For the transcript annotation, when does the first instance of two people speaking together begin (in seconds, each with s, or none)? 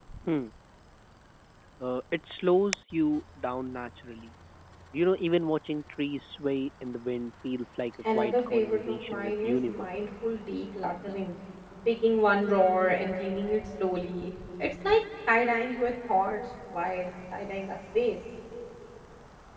8.0 s